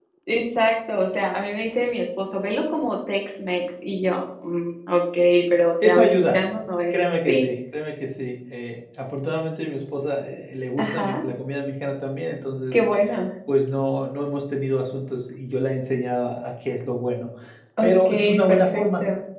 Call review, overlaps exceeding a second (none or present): present